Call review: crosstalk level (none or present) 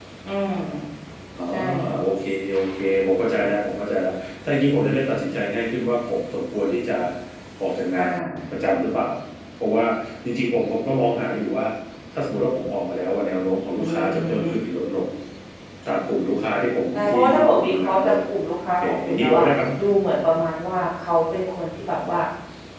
present